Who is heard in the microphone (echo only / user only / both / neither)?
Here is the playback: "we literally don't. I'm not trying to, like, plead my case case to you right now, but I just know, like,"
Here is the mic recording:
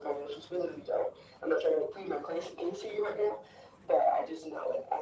echo only